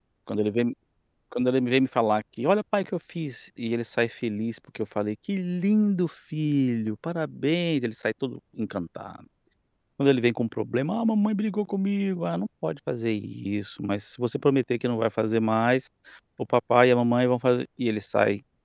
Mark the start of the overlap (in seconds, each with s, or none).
none